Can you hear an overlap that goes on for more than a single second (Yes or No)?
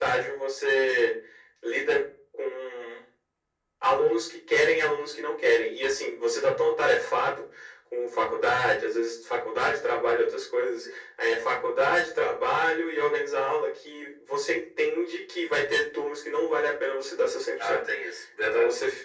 No